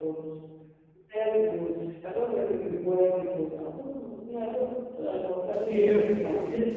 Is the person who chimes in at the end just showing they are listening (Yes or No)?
No